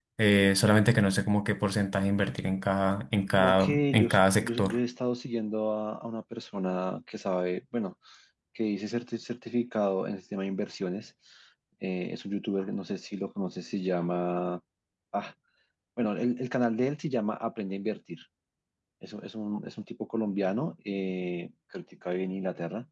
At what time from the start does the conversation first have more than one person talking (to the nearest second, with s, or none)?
3 s